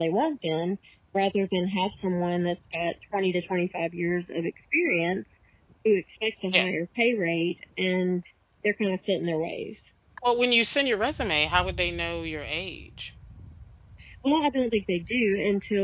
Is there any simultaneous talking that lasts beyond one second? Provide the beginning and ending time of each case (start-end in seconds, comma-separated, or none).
none